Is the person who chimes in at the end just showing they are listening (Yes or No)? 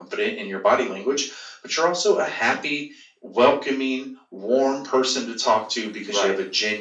Yes